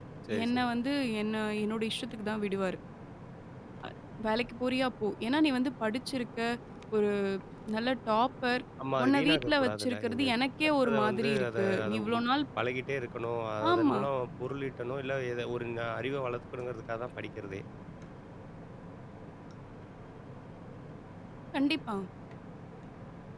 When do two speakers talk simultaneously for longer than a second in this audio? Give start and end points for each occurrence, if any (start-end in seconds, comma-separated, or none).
9.0-10.2, 10.8-12.2